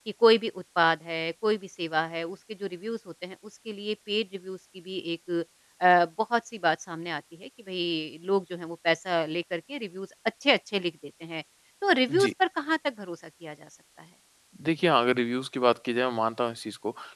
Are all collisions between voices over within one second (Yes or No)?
Yes